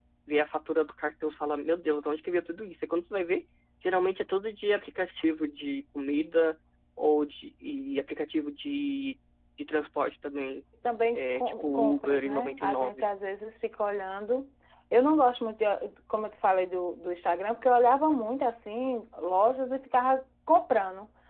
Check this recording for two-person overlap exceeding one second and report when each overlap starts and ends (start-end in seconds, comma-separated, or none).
11.1-13.0